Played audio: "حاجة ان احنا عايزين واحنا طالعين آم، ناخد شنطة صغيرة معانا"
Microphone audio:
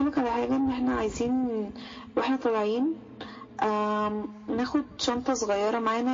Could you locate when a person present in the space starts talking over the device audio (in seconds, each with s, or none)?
none